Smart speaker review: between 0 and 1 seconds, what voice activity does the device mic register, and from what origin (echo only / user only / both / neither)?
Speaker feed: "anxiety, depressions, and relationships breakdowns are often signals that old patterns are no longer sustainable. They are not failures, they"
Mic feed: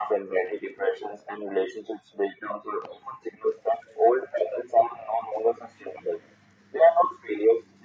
echo only